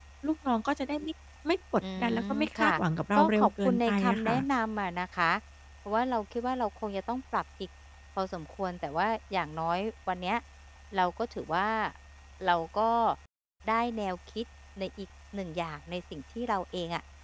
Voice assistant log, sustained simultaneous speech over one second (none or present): present